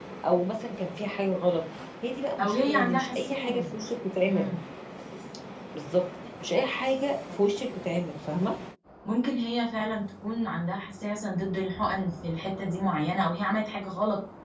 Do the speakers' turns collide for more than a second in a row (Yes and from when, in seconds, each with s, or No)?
Yes, from 2.4 s